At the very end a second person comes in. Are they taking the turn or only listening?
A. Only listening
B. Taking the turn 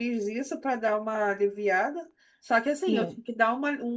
A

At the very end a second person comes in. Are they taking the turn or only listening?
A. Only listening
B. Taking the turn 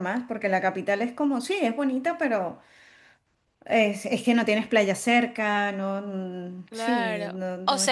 B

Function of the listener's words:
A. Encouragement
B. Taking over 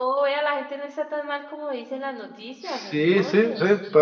B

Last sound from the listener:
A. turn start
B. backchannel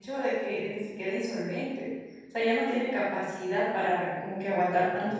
B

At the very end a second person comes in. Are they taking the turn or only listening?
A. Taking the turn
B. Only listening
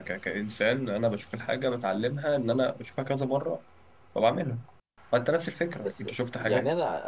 A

